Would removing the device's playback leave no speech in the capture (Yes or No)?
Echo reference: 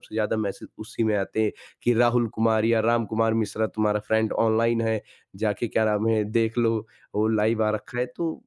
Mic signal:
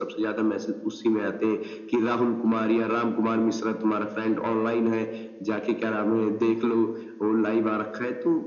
Yes